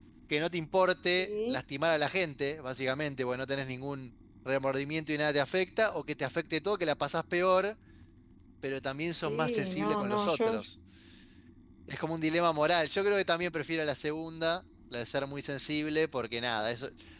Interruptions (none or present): present